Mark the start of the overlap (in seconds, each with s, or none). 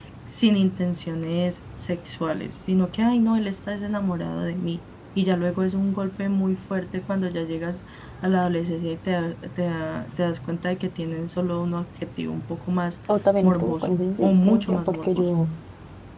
13.4 s